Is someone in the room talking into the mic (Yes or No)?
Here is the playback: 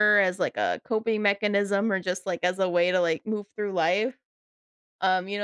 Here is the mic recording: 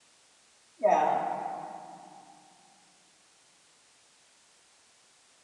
Yes